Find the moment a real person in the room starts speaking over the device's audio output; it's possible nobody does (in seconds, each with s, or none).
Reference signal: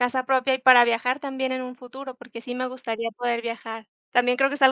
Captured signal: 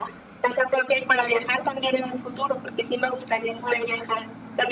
none